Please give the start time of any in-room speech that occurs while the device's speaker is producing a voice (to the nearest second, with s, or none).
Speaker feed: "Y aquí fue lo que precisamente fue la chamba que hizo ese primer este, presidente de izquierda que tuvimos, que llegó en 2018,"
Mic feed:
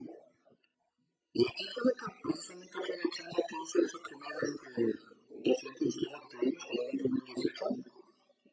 none